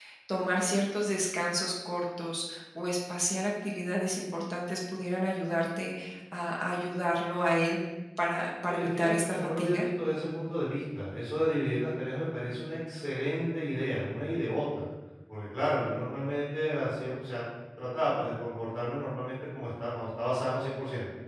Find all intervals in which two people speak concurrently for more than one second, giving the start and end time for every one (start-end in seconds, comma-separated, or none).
8.6-9.8